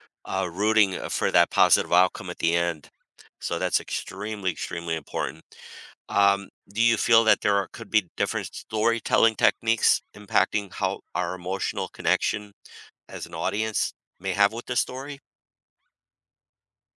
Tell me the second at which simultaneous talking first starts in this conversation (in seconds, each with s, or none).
none